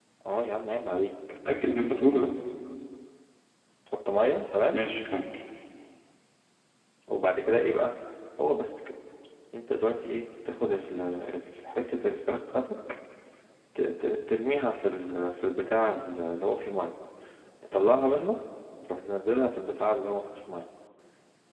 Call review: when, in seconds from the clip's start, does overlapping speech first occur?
none

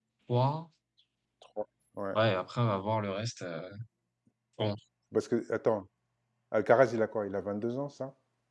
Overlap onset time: none

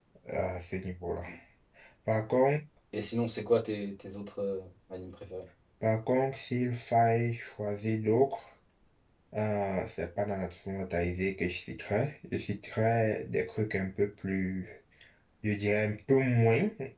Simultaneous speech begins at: none

